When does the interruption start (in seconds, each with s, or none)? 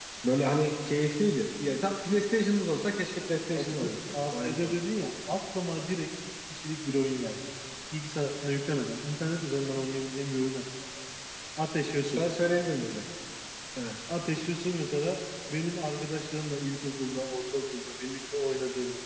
3.6 s